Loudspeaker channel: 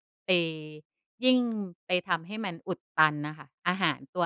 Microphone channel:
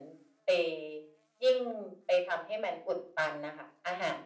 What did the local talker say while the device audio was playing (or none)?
none